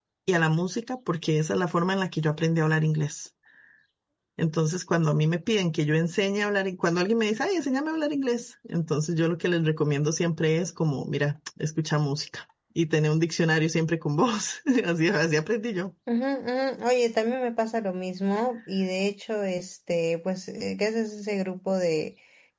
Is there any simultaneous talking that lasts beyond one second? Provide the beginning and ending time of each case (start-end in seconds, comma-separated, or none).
none